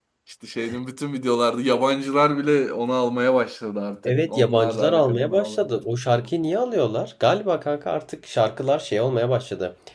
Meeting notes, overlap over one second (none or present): present